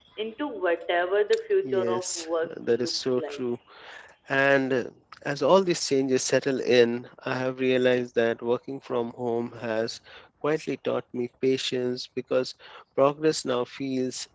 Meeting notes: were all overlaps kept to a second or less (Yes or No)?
No